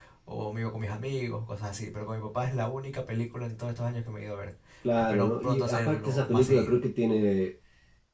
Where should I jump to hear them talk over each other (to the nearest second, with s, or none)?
5 s